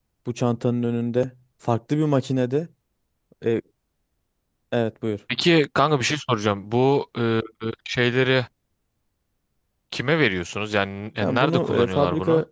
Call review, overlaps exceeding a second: present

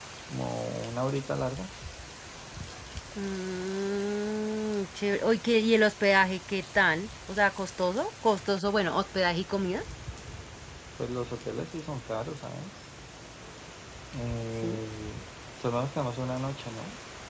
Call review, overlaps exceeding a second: none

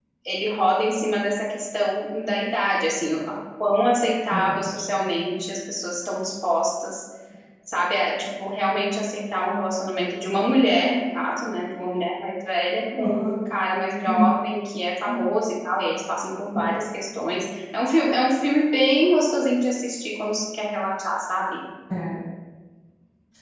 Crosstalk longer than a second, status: none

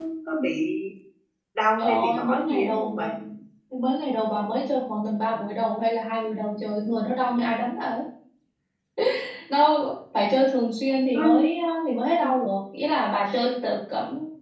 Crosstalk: present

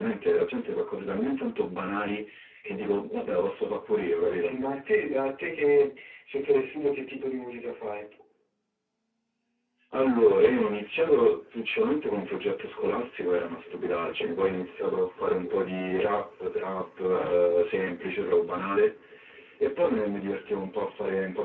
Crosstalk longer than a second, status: none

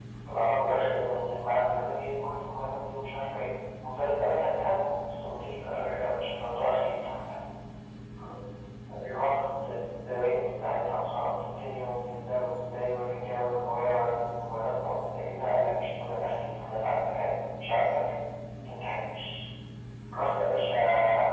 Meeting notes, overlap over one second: none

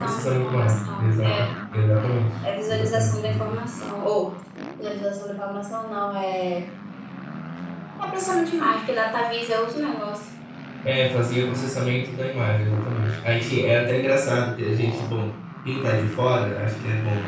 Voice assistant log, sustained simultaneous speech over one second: present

